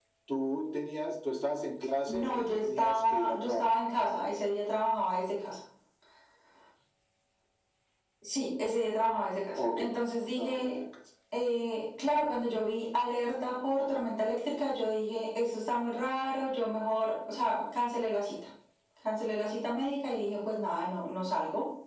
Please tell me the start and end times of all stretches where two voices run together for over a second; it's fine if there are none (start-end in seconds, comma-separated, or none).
2.1-3.8